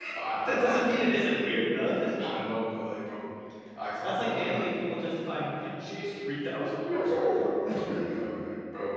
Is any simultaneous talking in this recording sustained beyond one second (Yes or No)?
Yes